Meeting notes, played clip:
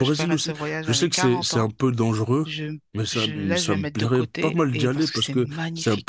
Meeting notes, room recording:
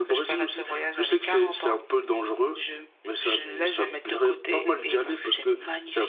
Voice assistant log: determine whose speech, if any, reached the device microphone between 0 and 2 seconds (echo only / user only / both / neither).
echo only